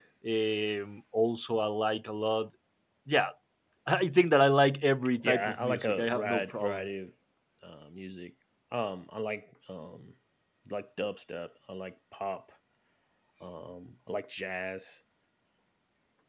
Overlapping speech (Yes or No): Yes